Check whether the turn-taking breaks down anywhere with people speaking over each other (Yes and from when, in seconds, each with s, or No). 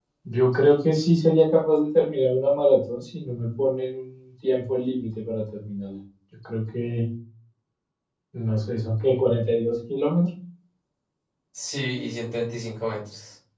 No